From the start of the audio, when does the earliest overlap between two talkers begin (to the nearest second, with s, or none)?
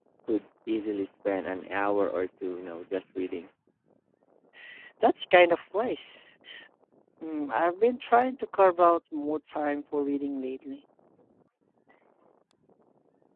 none